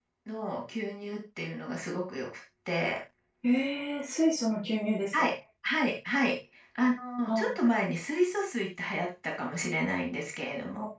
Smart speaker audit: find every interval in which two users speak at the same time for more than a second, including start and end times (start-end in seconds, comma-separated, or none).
none